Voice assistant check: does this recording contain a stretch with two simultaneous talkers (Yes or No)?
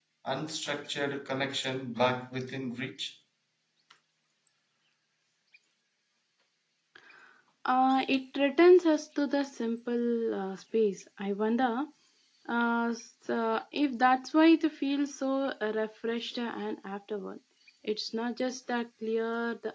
No